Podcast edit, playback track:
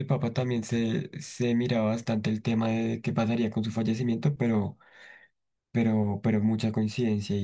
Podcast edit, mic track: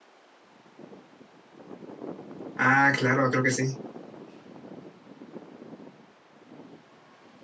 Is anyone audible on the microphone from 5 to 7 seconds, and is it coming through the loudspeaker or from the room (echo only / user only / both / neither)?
neither